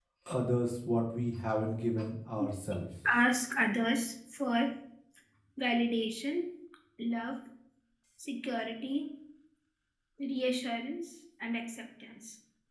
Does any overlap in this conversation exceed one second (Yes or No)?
No